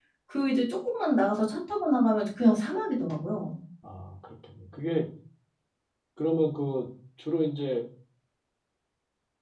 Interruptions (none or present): none